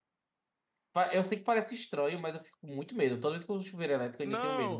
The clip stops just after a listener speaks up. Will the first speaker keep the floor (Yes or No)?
No